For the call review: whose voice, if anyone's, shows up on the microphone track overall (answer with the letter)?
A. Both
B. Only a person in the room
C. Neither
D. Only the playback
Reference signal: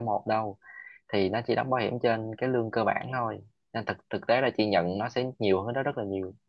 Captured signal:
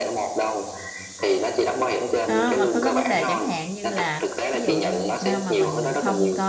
A